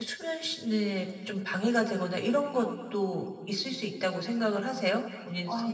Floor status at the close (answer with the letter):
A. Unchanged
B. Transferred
B